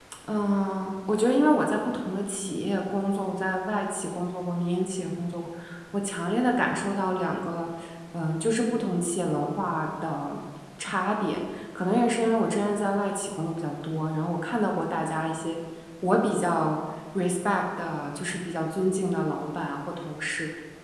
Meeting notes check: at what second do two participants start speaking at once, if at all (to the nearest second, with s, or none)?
none